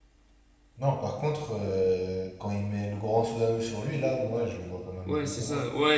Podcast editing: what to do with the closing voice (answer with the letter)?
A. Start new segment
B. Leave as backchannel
A